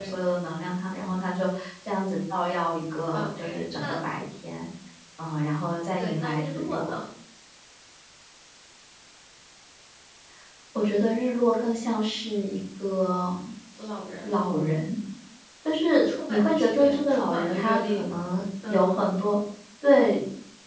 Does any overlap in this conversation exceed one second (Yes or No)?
Yes